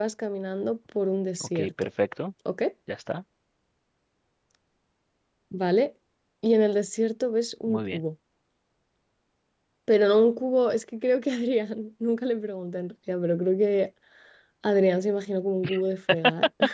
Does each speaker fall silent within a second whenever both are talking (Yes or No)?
Yes